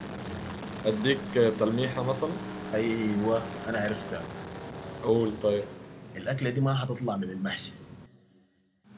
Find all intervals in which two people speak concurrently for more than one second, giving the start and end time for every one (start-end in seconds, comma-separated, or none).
none